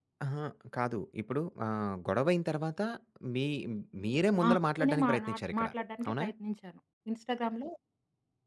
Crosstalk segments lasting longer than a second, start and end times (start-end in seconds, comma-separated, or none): 4.5-5.7